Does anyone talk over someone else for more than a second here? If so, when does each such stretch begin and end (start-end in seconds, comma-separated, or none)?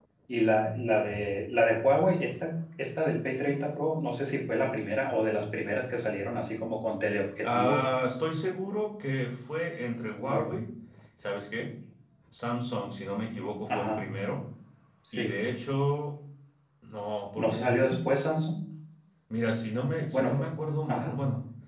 none